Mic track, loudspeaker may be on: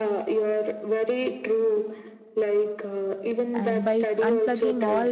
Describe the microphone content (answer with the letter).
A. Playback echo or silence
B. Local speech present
B